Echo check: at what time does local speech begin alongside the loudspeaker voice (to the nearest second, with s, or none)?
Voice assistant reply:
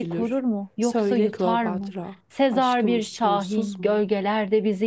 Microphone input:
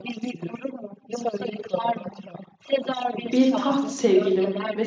3 s